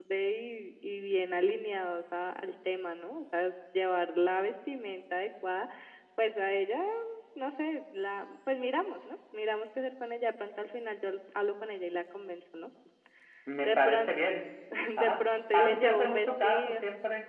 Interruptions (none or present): present